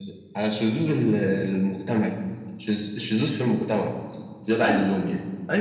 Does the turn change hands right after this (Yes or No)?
Yes